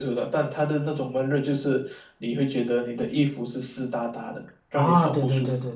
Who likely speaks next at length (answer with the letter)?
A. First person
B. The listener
B